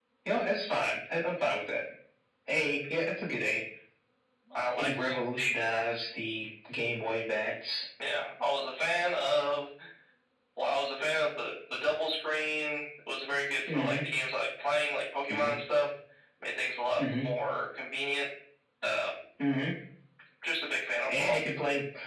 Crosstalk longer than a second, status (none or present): none